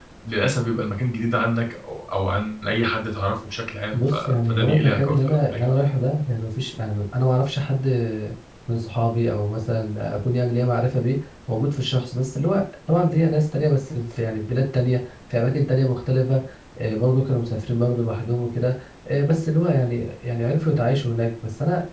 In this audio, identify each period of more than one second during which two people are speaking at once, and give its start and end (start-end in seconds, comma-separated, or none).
3.9-5.7